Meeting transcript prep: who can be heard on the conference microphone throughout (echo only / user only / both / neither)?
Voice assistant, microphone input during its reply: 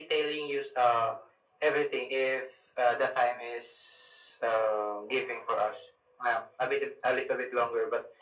echo only